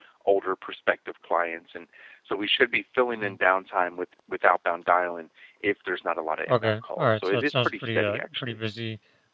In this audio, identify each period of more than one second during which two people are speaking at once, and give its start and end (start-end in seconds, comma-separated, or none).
6.5-8.4